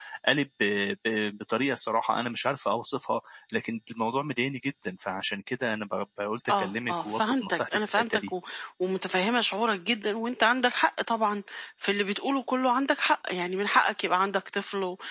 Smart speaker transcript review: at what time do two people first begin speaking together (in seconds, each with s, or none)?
6.5 s